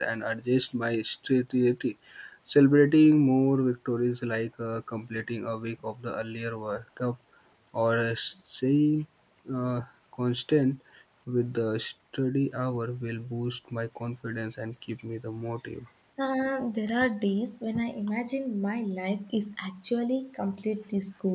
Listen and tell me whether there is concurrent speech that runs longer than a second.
No

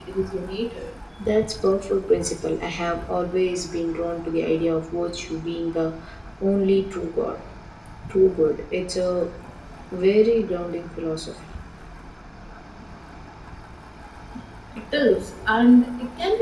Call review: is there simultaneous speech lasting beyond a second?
No

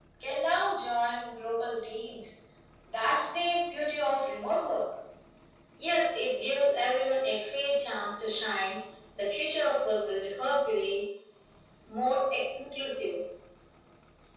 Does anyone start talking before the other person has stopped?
No

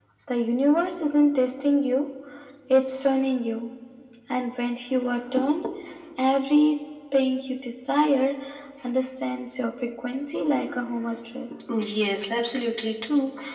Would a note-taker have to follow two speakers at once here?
No

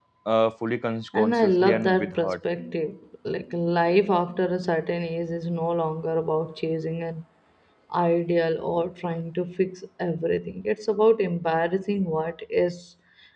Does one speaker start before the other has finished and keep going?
Yes, from 1.1 s

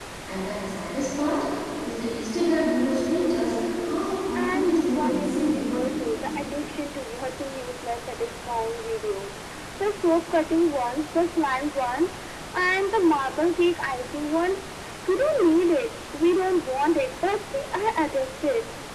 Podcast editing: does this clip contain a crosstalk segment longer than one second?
Yes, from 4.3 s

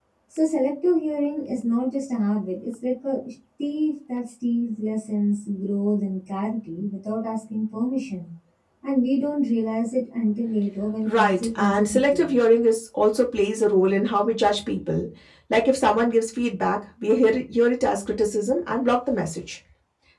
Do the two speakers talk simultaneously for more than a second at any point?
Yes, from 11.1 s

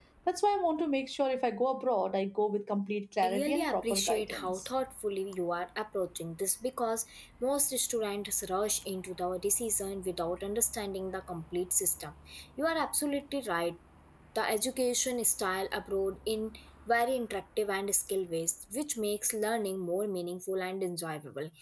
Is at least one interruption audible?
Yes, from 3.2 s

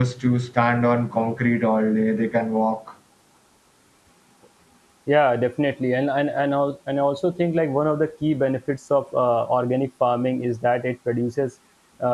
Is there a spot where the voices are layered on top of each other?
No

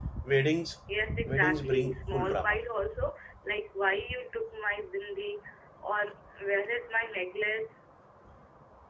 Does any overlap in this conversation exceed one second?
Yes, from 1.3 s

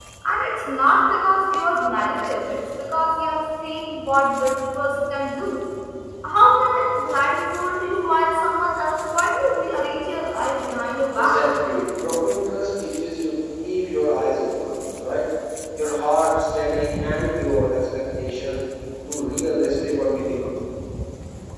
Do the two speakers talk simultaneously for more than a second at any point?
No

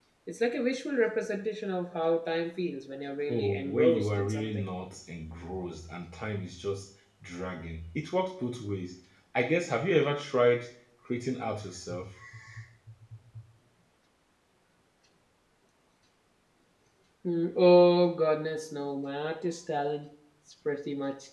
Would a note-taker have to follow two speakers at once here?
Yes, from 3.3 s

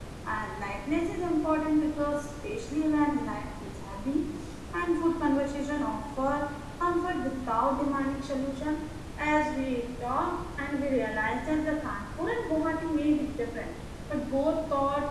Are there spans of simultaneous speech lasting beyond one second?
No

